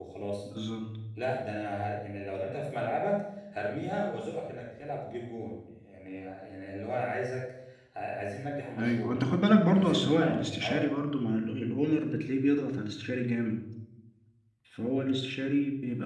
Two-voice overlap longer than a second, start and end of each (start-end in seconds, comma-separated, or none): 9.7-10.9